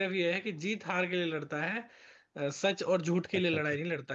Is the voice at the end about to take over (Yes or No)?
No